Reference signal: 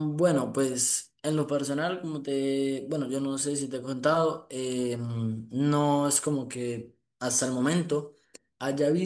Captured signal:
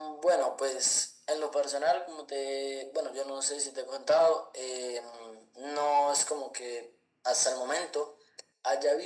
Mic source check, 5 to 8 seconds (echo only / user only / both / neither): echo only